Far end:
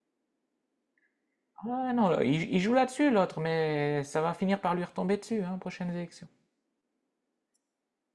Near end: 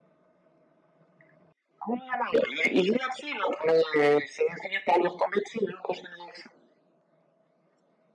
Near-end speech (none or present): none